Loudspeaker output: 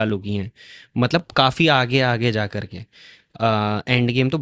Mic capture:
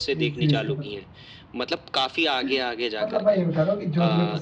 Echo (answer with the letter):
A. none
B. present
B